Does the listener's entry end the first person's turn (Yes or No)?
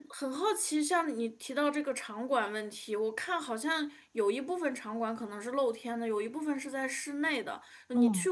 No